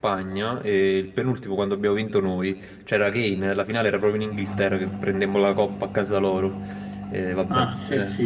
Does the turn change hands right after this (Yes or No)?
Yes